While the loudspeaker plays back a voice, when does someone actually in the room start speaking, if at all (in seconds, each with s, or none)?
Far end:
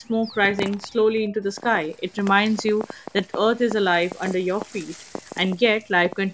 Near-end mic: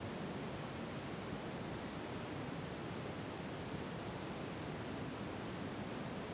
none